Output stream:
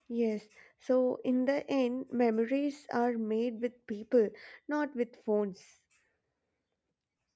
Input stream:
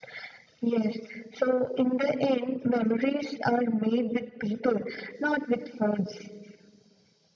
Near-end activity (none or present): none